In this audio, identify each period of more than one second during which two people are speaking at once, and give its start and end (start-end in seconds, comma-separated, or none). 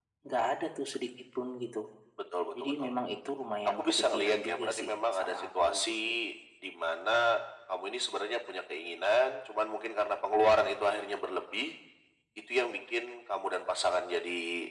3.8-6.1